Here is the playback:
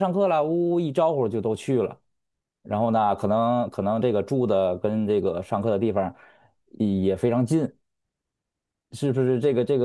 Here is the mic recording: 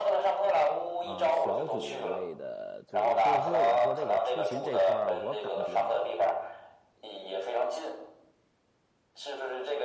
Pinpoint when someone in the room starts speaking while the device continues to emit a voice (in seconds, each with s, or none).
1.0 s